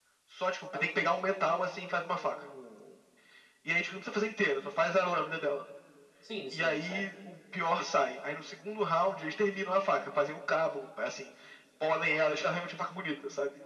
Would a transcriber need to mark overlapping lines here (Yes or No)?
Yes